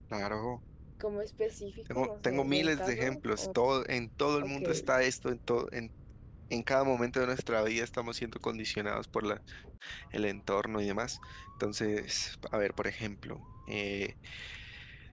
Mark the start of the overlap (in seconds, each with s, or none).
1.9 s